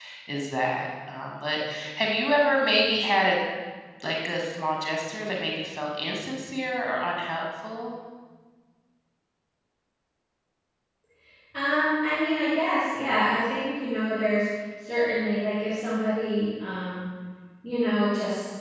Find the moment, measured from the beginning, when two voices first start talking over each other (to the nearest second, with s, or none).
none